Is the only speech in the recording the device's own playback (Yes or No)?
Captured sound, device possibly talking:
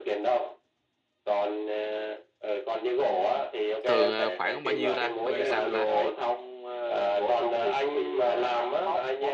No